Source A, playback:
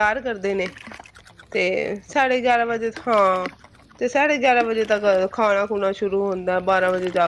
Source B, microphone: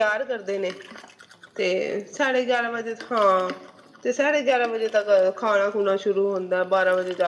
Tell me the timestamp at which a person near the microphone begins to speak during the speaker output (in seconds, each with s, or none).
none